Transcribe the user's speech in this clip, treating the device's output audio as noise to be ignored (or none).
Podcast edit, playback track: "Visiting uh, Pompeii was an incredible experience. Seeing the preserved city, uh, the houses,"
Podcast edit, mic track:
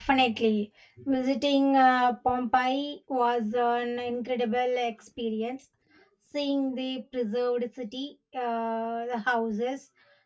none